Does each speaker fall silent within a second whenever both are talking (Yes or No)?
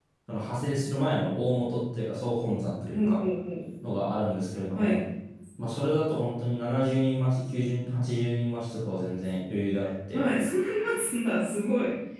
Yes